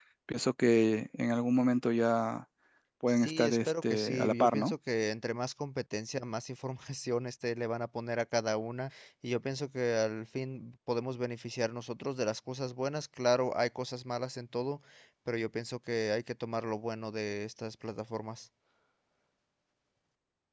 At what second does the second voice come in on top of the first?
3 s

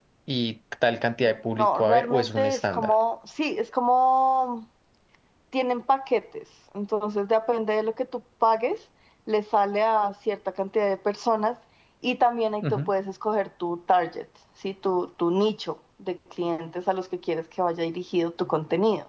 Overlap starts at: 2 s

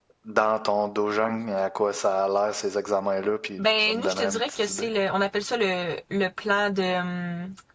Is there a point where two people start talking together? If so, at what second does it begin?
4 s

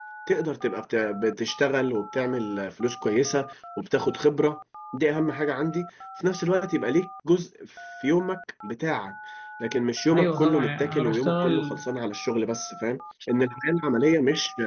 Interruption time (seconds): 10 s

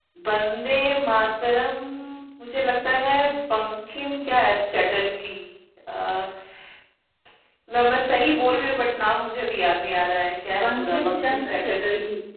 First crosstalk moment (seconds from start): 10 s

